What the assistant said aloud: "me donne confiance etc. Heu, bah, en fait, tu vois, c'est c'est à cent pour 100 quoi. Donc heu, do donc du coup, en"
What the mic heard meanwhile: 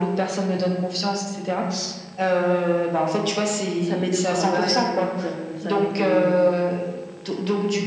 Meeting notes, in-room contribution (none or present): present